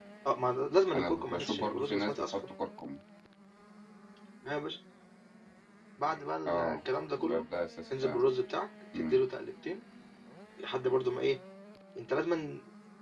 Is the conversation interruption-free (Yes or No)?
No